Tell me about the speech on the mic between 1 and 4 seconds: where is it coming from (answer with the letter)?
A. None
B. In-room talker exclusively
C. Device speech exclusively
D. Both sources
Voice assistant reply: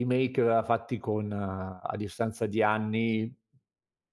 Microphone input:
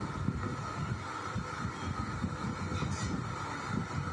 A